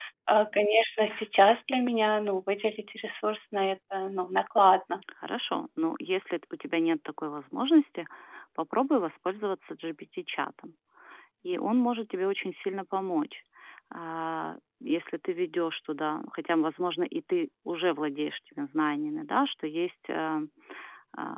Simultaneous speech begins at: none

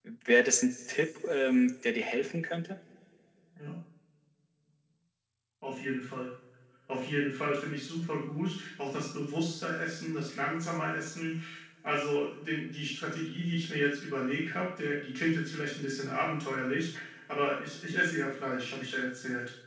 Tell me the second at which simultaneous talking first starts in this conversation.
none

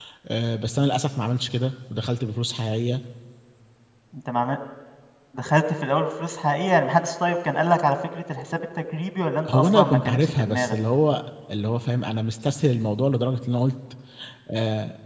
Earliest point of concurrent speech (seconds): 9.4 s

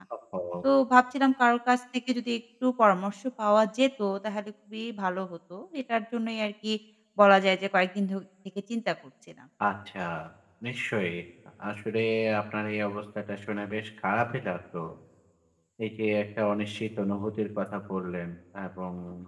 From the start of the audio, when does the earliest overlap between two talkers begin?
none

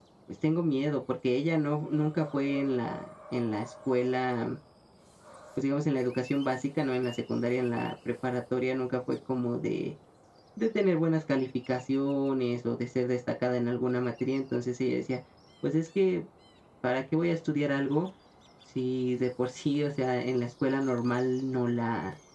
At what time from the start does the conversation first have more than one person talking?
none

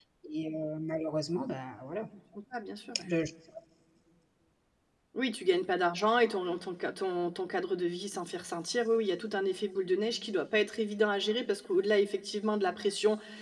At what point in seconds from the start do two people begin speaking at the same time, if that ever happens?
none

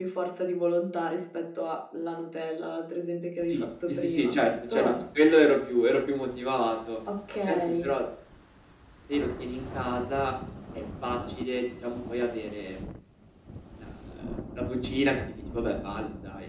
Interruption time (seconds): 3.5 s

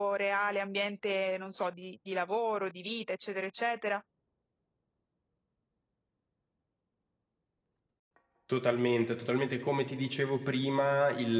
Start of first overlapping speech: none

